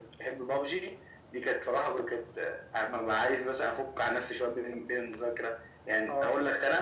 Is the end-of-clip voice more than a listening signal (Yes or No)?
No